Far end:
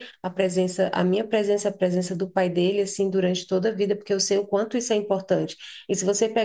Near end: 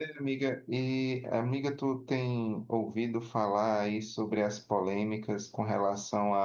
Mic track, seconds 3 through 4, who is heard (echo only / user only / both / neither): user only